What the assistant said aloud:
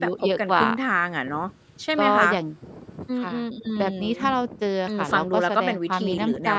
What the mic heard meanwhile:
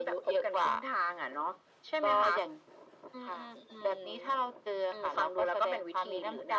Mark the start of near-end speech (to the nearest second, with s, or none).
none